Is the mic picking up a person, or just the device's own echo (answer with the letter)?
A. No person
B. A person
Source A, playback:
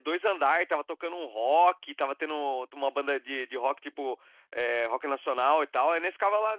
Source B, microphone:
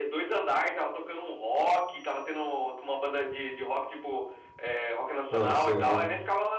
B